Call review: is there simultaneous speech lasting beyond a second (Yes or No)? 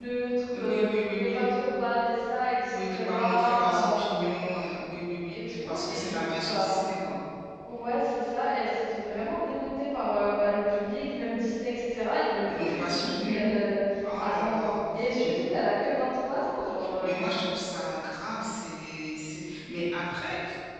Yes